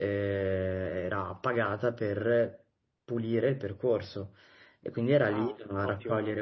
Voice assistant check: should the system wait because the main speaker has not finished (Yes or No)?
Yes